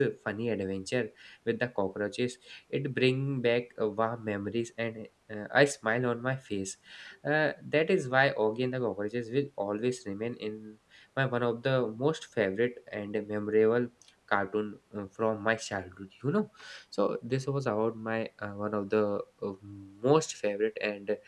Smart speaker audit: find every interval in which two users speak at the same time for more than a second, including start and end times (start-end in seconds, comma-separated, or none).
none